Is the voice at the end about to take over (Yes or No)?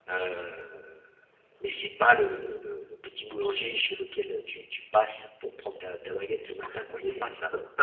Yes